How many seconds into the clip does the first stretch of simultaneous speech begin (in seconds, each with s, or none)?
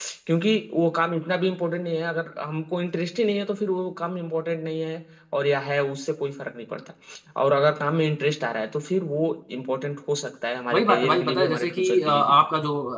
10.7 s